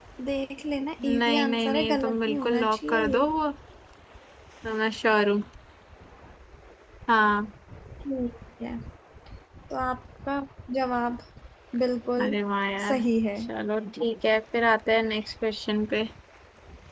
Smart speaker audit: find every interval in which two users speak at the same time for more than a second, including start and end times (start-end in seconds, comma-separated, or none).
1.2-3.2